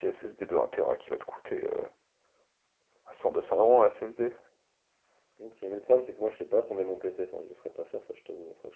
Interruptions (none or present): none